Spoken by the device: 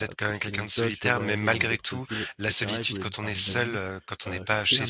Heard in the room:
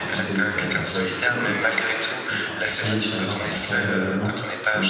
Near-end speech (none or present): present